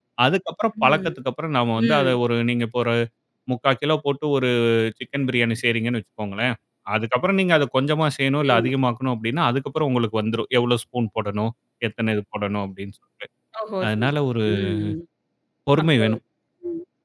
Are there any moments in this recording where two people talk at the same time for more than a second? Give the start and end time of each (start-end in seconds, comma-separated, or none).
none